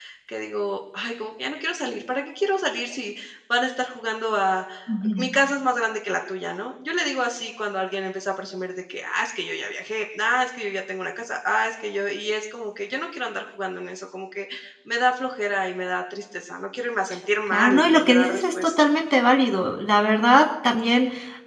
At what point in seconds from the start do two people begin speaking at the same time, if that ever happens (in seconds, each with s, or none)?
17.5 s